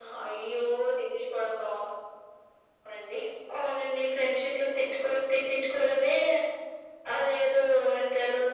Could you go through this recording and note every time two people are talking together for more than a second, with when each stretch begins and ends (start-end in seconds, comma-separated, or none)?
none